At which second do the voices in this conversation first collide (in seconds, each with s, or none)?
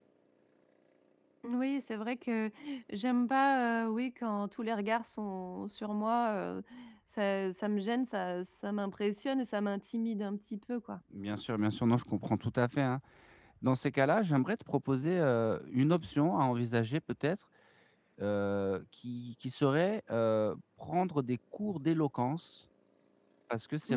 none